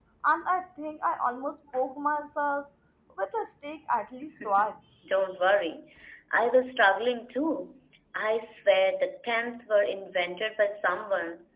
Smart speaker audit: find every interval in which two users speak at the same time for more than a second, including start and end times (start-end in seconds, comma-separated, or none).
none